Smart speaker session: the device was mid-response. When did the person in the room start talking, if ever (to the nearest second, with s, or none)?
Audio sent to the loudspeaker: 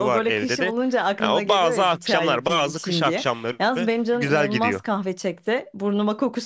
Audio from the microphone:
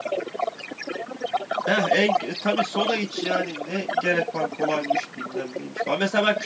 2 s